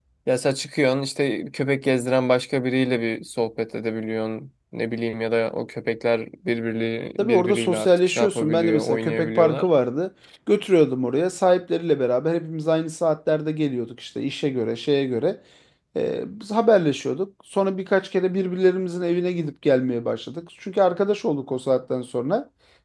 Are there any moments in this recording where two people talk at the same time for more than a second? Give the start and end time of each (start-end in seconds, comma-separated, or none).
7.2-9.7